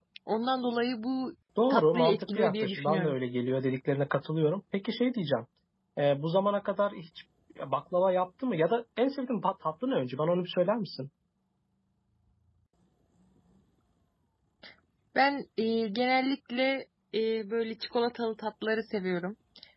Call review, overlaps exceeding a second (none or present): present